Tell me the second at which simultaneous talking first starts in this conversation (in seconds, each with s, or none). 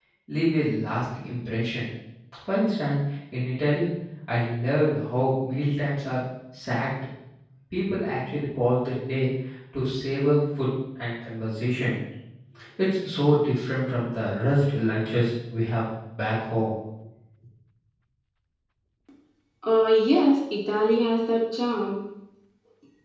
none